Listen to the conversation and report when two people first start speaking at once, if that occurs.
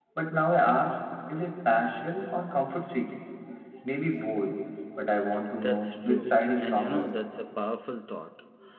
5.5 s

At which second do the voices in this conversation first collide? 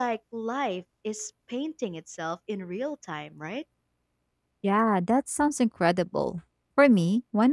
none

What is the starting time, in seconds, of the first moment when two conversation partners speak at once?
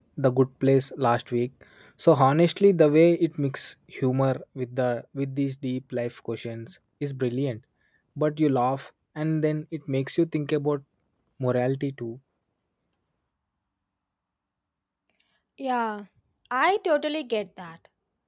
none

